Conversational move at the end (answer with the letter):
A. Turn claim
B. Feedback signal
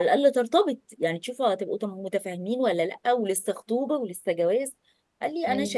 B